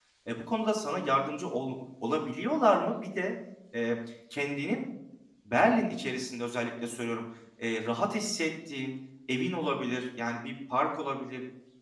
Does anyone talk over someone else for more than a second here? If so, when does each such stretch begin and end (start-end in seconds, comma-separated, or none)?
none